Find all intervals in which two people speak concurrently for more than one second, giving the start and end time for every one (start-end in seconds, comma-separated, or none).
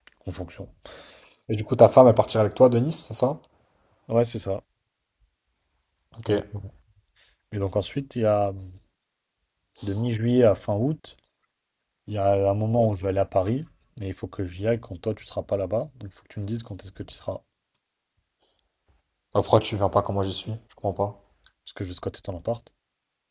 none